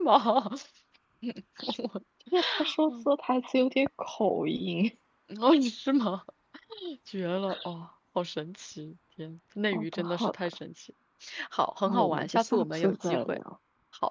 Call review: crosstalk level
present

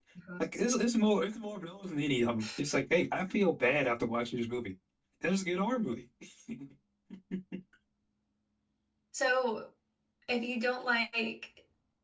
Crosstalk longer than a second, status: none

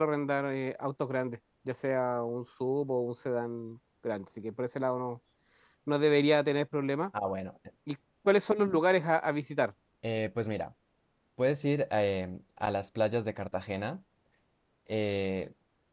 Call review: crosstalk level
none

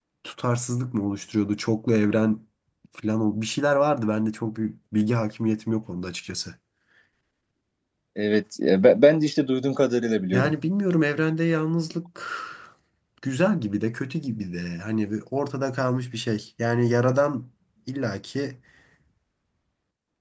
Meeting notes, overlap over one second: none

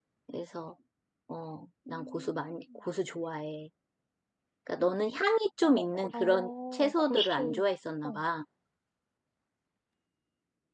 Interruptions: present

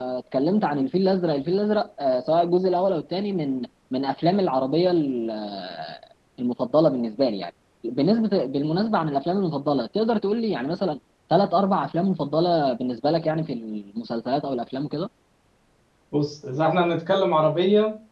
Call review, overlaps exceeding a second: none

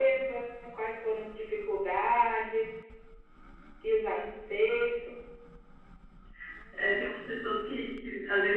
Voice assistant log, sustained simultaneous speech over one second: none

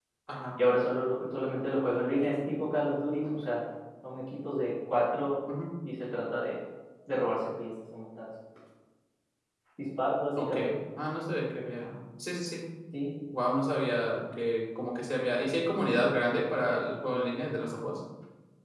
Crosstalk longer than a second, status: none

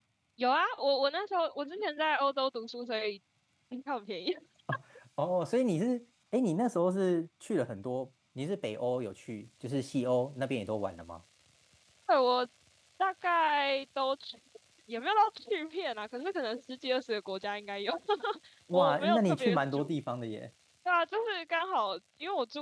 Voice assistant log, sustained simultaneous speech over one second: present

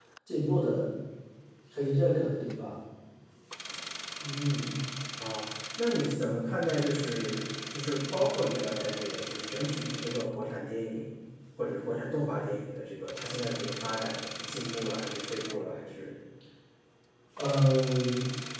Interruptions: none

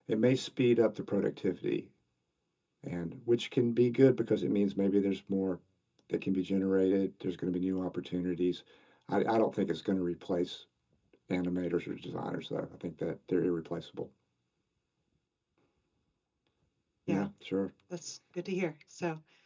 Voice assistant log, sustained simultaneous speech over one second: none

